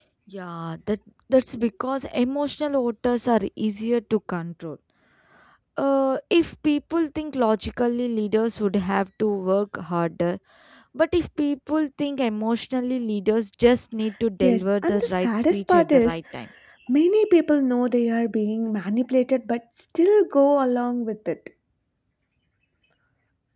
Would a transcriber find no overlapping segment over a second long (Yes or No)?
No